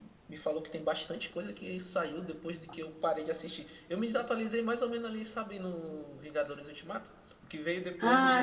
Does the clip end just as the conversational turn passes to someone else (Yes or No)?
No